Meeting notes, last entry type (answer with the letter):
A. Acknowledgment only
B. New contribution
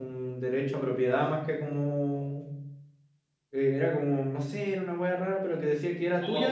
B